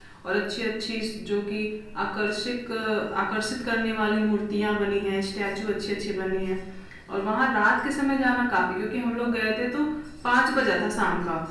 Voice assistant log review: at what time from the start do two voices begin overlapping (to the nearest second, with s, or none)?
none